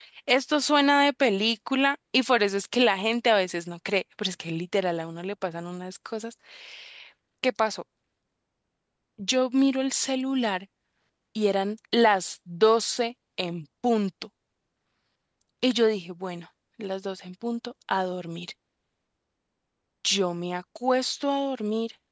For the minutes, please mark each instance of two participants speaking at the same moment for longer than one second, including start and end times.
none

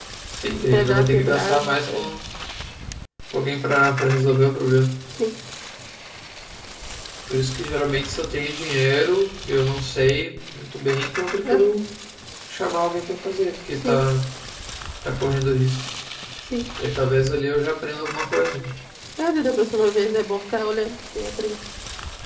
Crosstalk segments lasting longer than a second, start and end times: 0.7-2.0

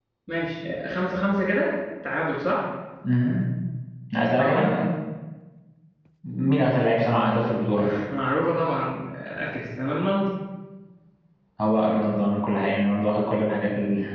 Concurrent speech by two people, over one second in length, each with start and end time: none

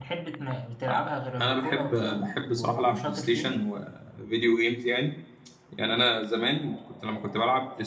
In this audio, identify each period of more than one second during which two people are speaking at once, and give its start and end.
1.4-3.5

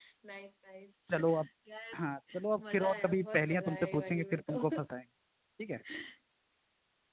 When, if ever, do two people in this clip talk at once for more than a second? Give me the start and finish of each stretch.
2.7-4.6

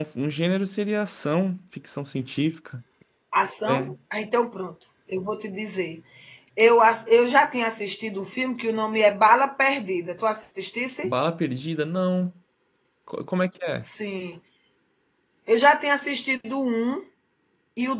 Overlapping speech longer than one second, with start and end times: none

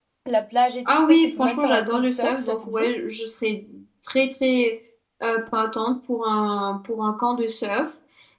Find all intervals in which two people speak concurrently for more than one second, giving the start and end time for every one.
0.9-2.9

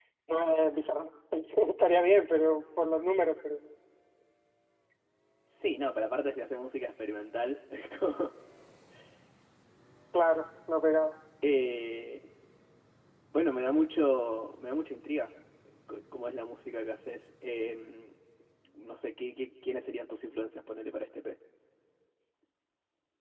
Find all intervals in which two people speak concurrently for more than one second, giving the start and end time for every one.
none

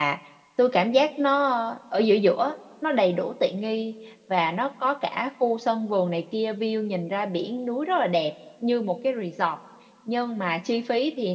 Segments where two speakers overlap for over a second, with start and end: none

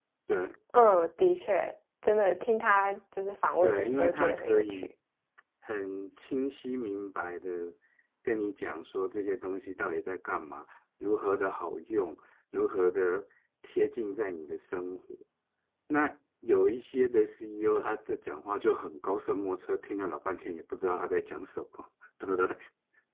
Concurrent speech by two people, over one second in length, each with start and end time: 3.6-4.9

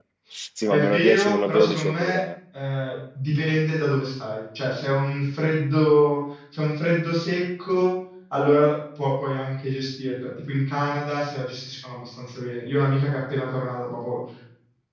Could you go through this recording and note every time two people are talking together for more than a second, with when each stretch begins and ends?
0.7-2.2

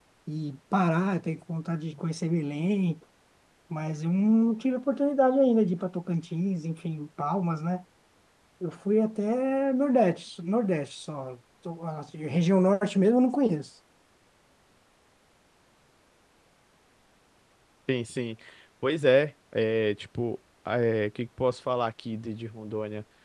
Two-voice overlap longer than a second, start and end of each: none

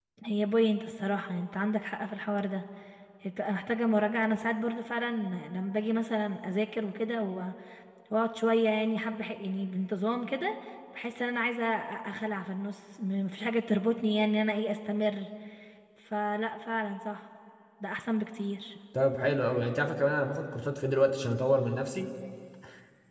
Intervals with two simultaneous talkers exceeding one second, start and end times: none

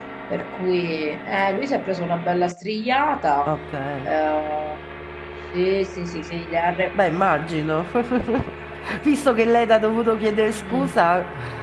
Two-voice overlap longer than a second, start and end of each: none

